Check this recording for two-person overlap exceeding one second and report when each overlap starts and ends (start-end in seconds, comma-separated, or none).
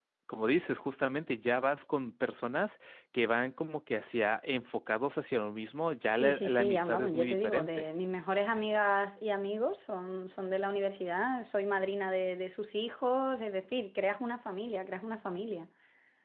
6.1-7.9